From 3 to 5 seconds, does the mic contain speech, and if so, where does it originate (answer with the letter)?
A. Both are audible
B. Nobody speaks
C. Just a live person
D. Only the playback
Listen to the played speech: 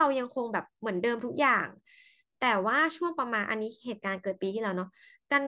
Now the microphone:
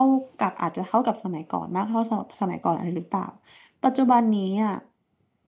C